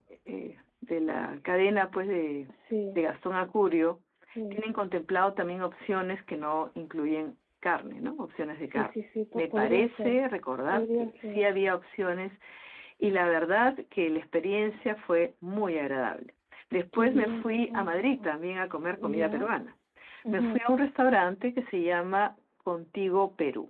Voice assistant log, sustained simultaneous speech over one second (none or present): present